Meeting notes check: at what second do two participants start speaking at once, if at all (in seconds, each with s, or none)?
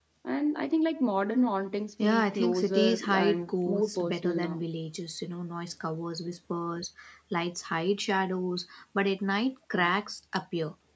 2.0 s